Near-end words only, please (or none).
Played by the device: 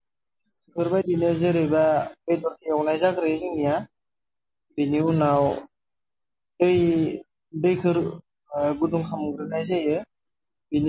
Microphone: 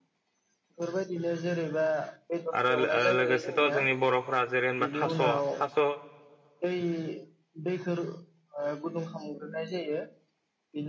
आरो लो-लोगोसेथ' जोंनि बर'फोरा जेरै होनबा थास' थास'